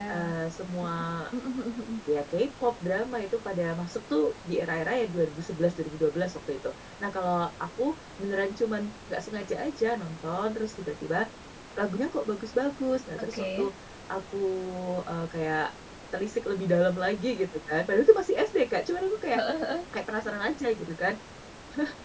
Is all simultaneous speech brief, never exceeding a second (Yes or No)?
Yes